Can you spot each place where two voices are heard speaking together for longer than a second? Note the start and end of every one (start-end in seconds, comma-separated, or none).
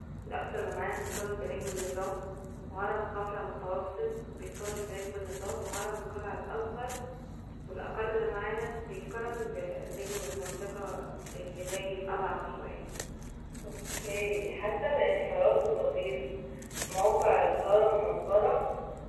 none